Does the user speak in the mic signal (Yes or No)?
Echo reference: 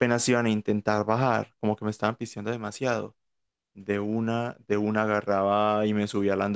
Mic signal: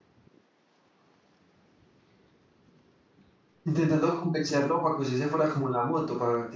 Yes